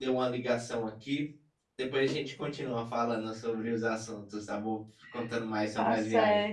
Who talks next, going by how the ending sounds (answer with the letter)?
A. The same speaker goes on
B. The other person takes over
B